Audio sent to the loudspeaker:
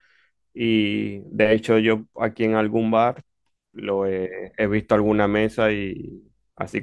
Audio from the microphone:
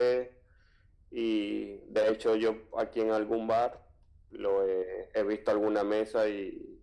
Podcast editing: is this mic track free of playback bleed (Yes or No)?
No